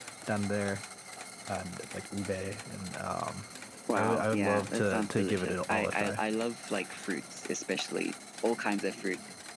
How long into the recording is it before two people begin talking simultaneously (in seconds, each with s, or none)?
4.0 s